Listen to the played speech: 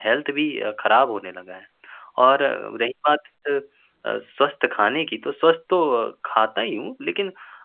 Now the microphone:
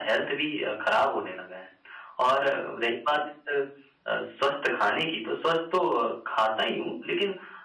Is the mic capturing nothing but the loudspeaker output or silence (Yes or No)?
Yes